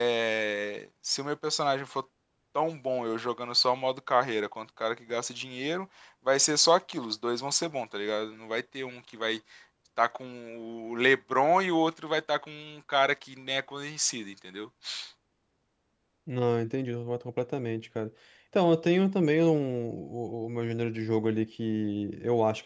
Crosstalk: none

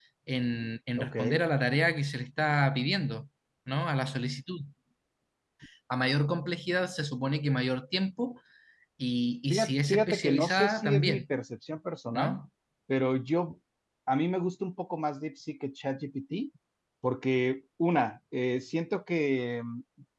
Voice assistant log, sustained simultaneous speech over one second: present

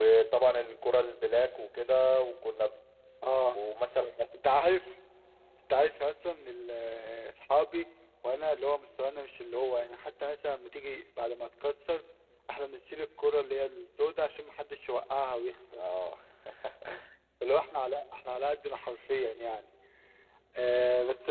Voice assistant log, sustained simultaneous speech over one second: none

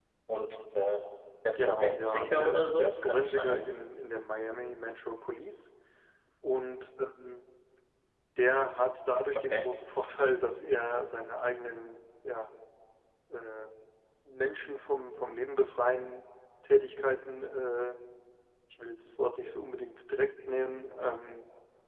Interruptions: present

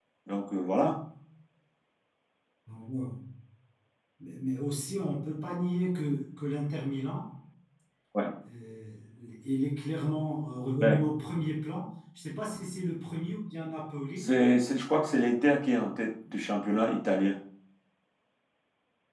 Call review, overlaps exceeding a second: none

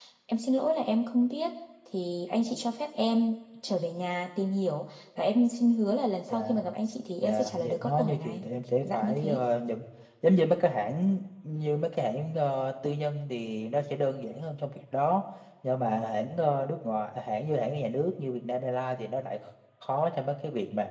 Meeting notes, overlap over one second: present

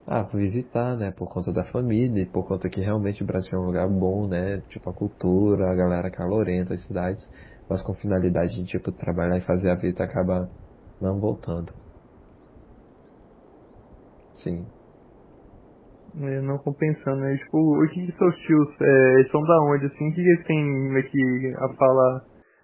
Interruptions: none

